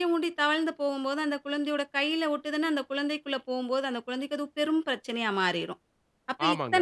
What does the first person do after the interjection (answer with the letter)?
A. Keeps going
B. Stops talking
B